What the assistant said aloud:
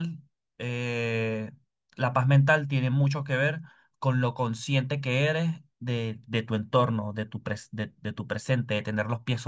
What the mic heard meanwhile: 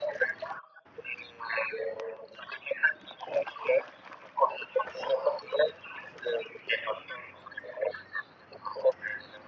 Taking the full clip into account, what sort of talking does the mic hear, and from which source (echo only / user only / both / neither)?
echo only